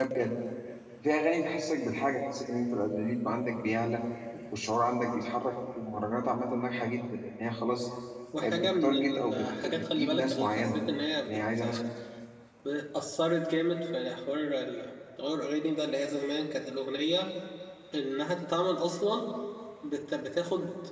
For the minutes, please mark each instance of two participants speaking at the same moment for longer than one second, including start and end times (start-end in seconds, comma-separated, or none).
8.4-10.8